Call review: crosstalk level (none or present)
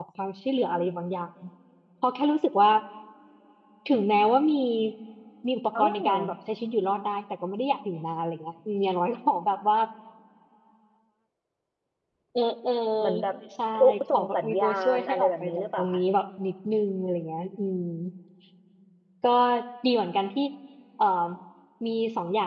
present